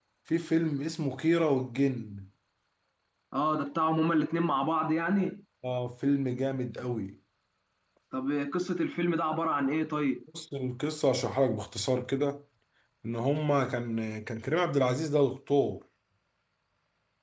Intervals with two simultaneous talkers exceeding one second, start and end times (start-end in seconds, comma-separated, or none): none